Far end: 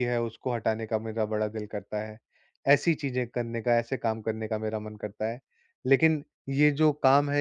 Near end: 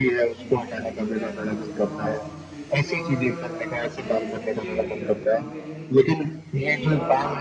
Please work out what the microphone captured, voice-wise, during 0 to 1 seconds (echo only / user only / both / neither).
both